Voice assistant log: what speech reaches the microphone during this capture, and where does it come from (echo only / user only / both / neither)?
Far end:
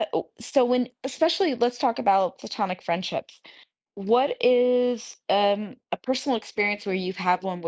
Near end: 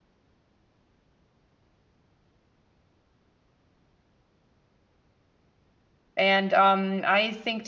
user only